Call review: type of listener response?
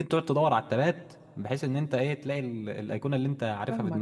taking over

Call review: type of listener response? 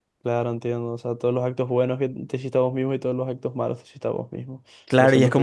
taking over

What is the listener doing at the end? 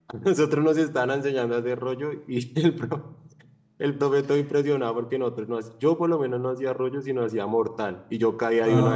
listening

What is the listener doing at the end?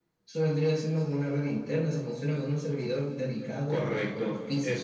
taking over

